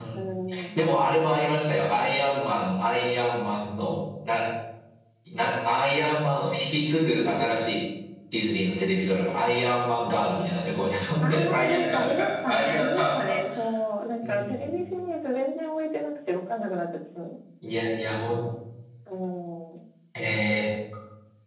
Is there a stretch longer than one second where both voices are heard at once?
Yes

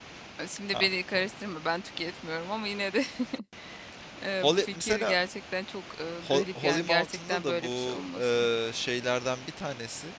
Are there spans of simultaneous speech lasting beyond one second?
Yes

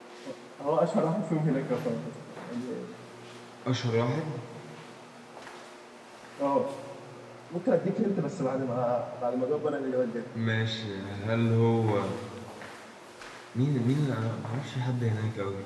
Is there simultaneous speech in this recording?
No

